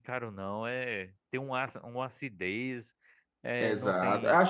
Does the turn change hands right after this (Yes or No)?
Yes